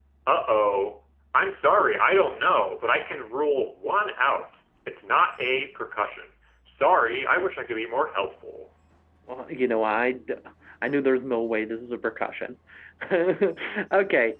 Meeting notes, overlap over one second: none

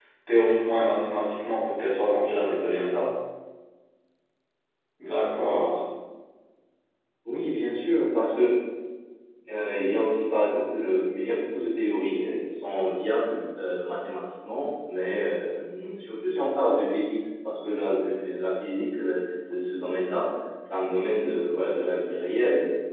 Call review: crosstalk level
none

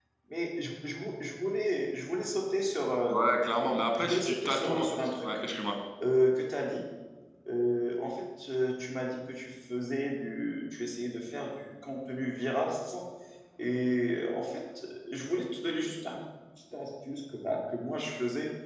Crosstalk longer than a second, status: present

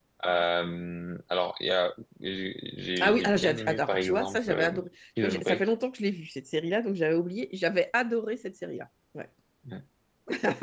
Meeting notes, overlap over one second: present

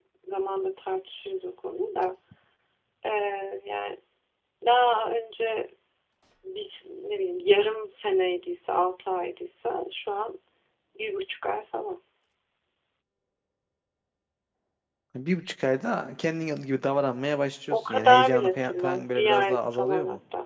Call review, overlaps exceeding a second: present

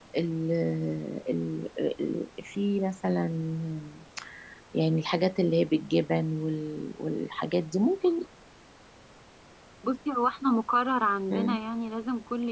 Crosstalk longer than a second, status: none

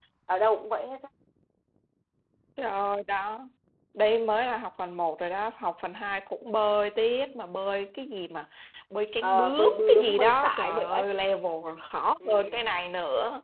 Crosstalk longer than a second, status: present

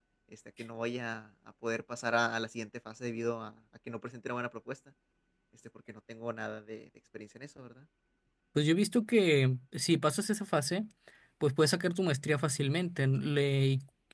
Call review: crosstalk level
none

